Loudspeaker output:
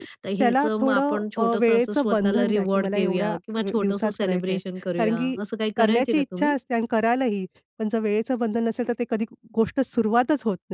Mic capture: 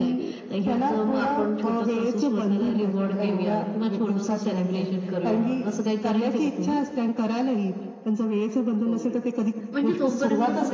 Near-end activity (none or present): present